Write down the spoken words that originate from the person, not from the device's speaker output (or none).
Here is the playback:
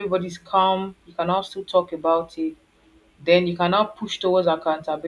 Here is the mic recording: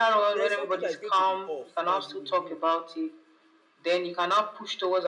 There is something that is going to be off that you will know.